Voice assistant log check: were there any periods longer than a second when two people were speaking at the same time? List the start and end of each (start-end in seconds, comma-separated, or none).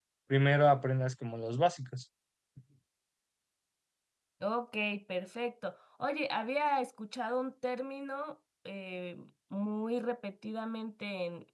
none